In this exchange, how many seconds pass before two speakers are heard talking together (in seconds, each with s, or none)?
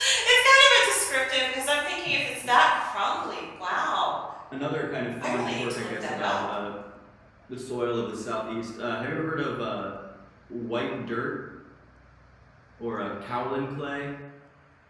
5.2 s